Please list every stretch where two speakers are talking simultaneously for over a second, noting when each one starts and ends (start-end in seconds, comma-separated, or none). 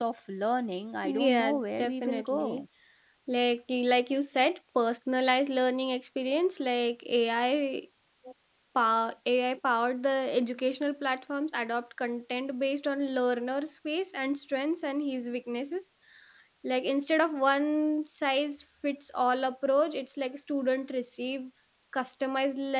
1.0-2.6